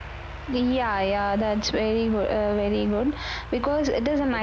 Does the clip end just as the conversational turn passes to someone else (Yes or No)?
No